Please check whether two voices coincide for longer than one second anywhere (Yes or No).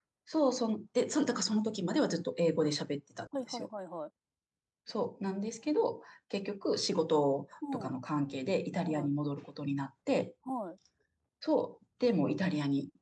No